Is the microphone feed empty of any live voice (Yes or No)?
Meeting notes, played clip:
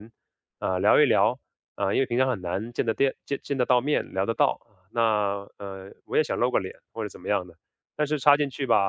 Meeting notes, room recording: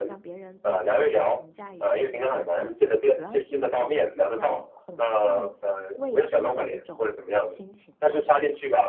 No